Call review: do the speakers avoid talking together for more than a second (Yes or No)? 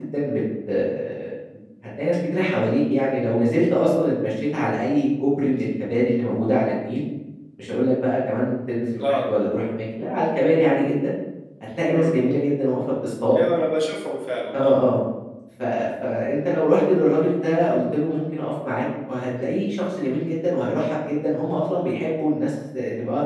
Yes